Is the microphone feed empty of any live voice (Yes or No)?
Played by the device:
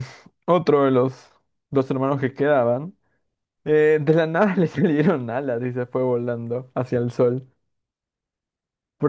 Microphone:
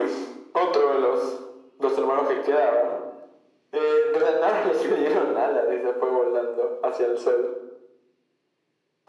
Yes